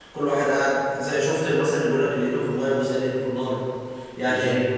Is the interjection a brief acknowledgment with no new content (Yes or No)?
Yes